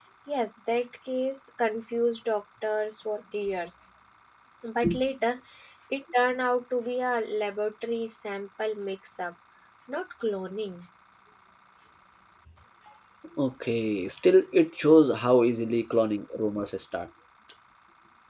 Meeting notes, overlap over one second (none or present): none